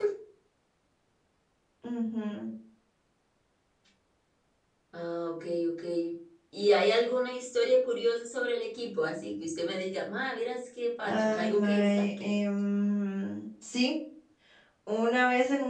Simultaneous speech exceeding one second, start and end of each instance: 11.0-12.3

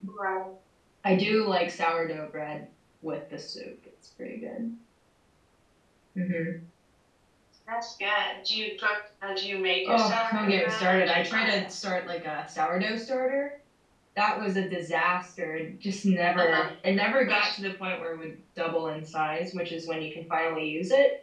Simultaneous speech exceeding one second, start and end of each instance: 9.8-11.7

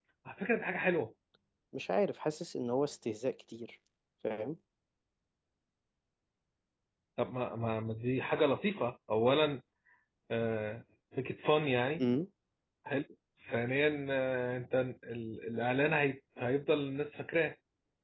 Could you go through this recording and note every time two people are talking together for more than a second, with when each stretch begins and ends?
none

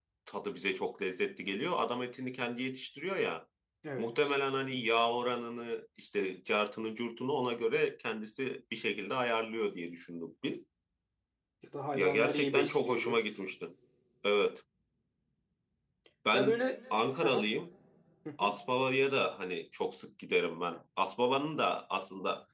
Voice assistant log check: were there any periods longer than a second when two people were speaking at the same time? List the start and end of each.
11.9-13.2

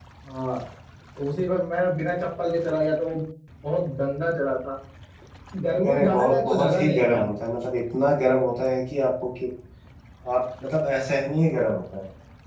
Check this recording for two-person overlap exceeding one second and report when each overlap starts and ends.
5.9-7.2

